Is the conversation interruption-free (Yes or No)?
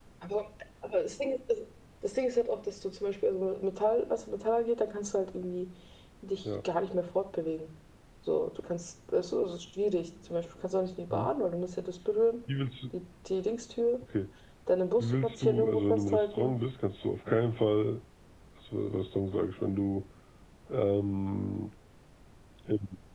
No